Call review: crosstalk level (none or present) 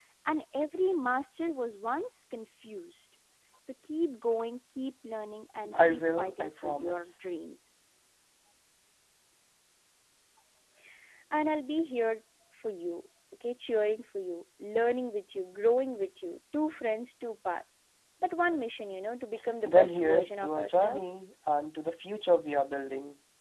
present